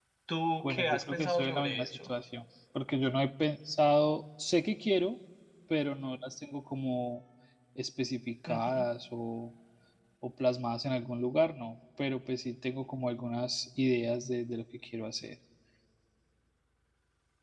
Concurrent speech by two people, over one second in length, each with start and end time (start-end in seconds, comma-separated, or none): 0.6-2.1